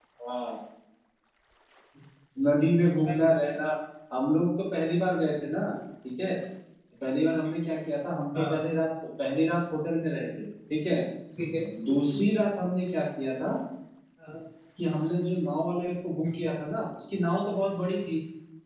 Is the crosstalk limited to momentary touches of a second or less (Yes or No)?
Yes